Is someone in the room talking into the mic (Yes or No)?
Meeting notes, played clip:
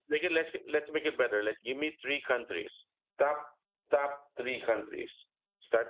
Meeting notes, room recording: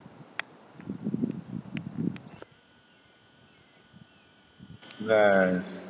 Yes